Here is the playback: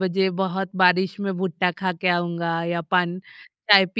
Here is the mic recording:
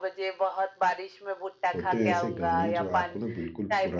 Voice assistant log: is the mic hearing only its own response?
No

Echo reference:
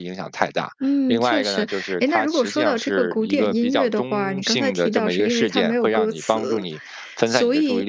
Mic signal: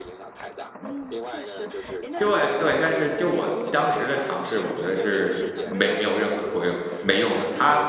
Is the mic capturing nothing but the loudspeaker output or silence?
No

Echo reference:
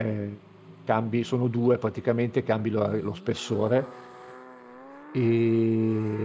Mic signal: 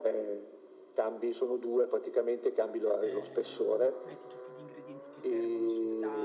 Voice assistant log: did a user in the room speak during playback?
Yes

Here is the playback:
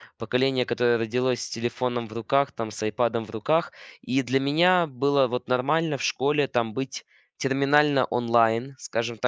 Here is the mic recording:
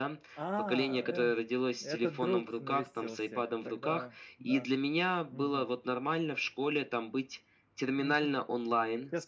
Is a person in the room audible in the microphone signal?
Yes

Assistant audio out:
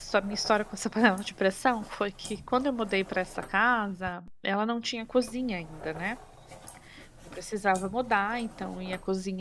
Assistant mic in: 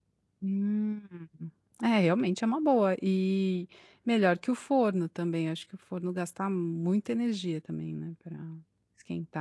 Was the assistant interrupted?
Yes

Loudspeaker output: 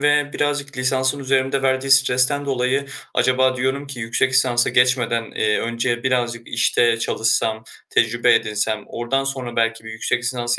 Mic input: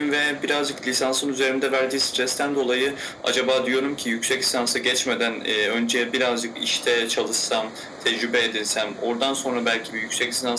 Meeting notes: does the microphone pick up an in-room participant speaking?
No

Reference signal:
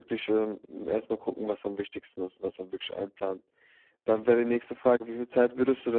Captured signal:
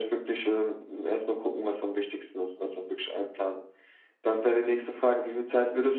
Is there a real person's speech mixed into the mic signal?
No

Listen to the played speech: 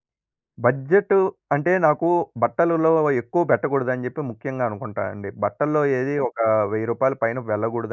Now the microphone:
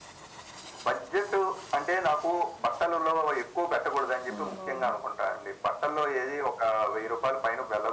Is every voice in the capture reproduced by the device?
No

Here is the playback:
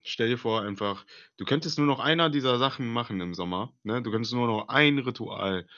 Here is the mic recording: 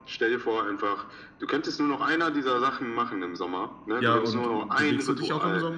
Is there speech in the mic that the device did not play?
Yes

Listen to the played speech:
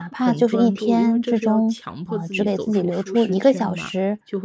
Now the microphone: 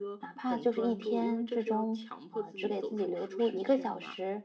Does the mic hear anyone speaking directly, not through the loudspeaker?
No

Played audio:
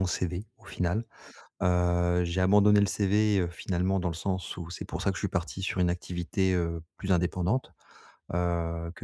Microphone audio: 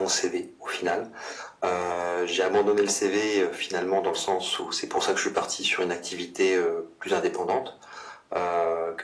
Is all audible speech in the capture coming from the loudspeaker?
Yes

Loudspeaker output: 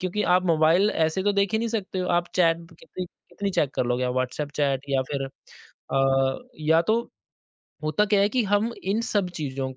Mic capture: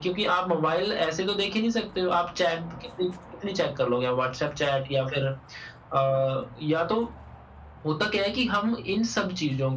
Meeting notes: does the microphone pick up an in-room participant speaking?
No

